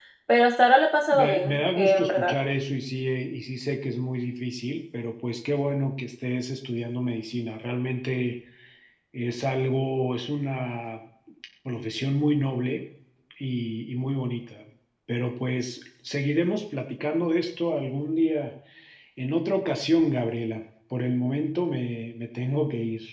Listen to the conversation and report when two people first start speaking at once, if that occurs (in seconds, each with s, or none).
1.0 s